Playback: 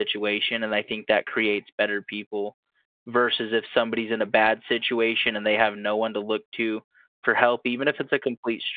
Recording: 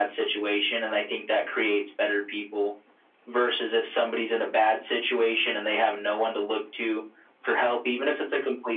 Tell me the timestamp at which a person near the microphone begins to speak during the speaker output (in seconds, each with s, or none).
none